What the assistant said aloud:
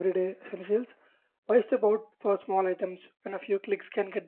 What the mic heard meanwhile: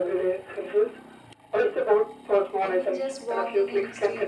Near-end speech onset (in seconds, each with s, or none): 2.6 s